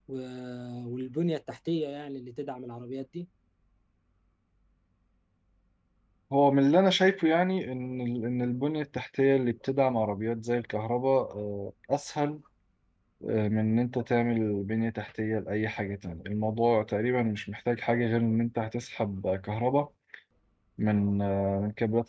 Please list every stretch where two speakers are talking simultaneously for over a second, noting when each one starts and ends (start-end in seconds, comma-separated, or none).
none